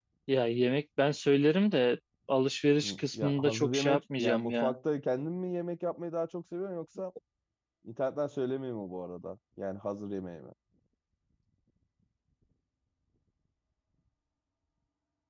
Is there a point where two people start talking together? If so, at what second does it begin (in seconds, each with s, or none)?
2.8 s